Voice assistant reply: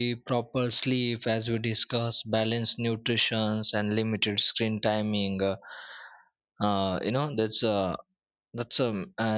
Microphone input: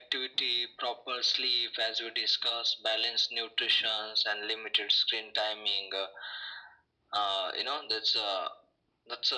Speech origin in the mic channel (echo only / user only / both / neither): echo only